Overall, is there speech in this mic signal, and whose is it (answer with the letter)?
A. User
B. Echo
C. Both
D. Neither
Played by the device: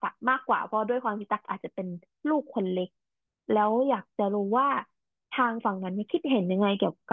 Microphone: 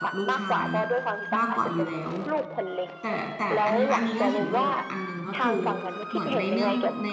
C